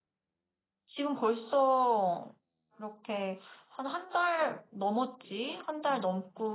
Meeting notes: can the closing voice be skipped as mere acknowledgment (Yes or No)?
Yes